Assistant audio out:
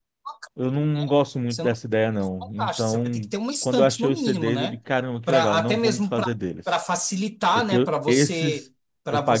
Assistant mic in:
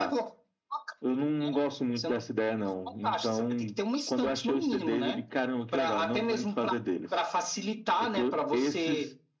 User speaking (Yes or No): No